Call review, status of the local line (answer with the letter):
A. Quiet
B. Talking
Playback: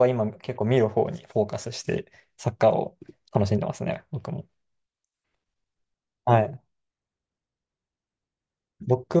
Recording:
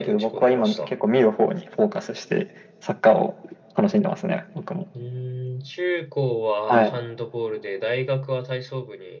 B